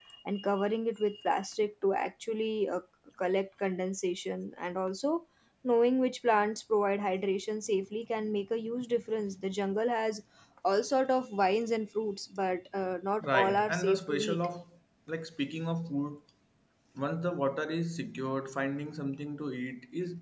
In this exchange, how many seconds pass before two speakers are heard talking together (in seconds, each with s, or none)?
13.2 s